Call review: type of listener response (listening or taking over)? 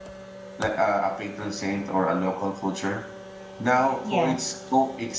listening